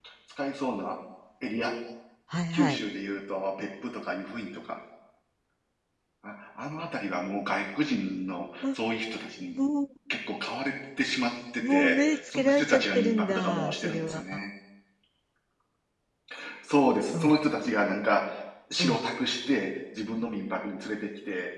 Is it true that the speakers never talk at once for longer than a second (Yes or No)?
No